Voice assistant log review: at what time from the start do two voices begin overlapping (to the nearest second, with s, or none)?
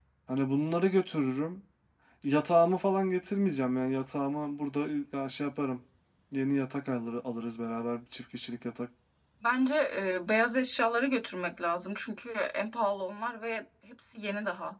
none